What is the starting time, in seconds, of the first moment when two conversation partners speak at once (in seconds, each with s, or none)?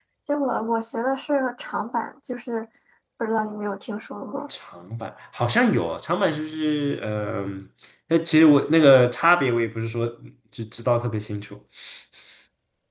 none